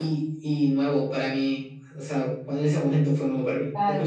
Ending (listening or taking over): taking over